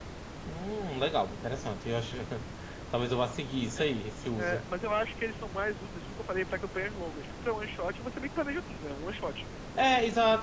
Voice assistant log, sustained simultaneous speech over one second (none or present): none